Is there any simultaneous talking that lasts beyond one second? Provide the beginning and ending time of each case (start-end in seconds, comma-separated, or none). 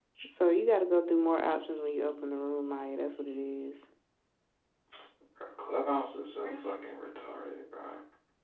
none